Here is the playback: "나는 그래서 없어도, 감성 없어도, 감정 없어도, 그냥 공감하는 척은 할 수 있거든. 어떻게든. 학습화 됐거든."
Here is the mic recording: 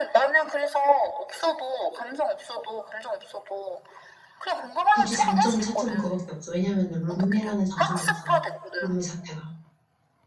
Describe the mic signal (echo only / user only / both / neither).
both